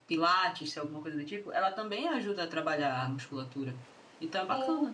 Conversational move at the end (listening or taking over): taking over